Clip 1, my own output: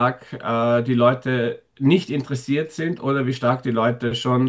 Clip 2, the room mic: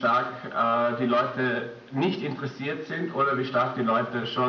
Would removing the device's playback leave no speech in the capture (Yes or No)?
Yes